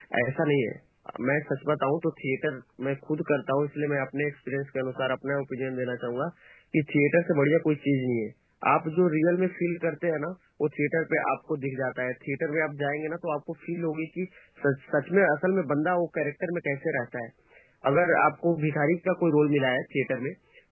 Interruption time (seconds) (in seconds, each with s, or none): none